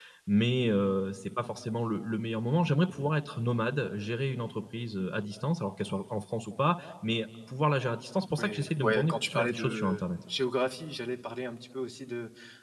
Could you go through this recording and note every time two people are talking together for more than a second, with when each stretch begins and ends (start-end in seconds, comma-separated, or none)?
8.4-10.1